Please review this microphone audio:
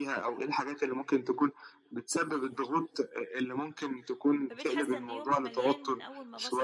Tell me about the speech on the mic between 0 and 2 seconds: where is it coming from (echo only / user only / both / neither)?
echo only